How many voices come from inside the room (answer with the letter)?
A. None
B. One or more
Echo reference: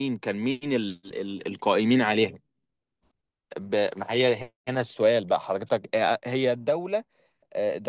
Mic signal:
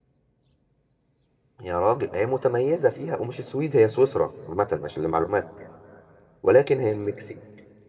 B